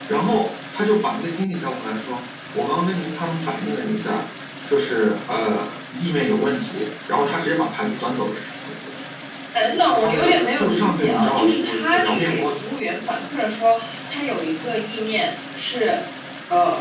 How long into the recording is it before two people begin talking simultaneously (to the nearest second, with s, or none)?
10 s